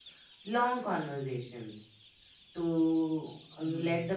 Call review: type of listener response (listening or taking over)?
listening